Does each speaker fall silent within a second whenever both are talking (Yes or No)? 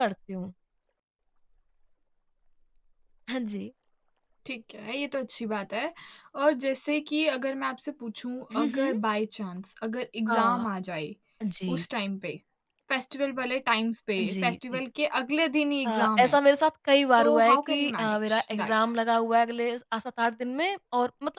No